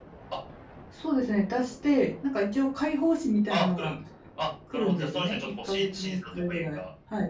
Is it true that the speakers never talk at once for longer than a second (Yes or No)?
No